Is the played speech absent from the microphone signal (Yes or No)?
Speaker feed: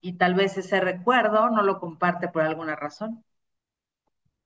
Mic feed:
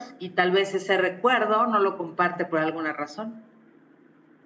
No